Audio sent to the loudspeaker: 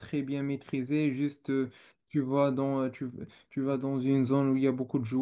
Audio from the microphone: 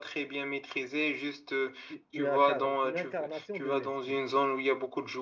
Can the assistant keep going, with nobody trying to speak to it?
No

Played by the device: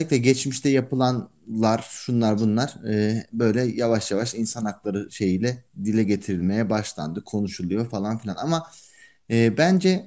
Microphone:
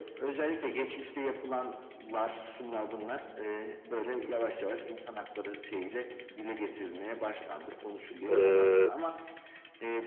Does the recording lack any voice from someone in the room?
No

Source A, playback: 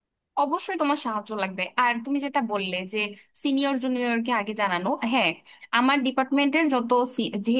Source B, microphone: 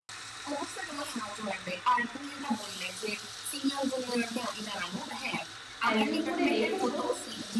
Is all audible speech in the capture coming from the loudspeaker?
No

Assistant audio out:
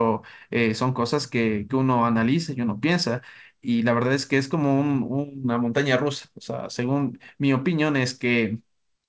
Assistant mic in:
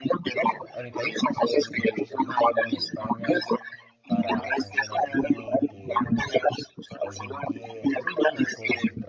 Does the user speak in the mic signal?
Yes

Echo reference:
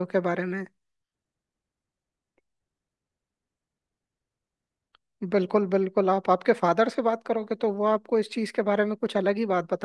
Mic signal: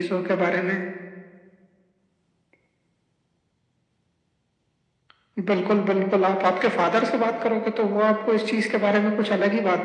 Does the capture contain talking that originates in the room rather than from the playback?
No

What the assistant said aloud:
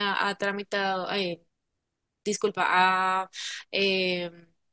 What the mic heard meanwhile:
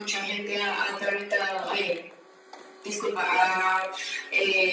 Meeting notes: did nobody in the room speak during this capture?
Yes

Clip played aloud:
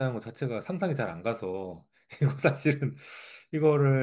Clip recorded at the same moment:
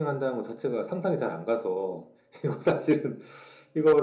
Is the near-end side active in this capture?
No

